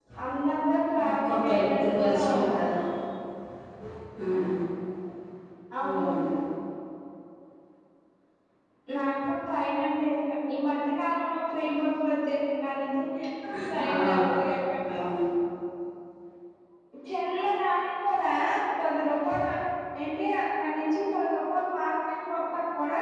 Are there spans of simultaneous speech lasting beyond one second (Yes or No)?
Yes